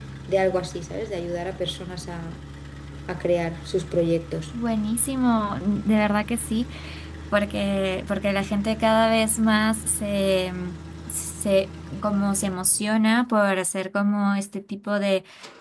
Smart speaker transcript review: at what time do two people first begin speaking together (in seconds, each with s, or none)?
none